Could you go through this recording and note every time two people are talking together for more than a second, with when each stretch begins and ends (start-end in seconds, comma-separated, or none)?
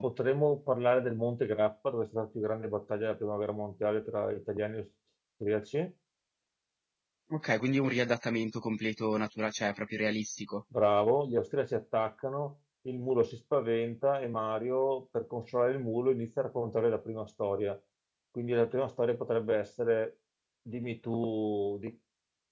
none